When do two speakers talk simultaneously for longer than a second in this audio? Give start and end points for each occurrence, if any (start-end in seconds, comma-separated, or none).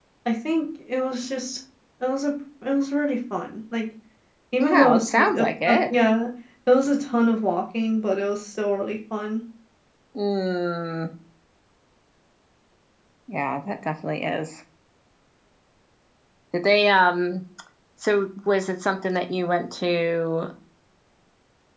4.6-5.9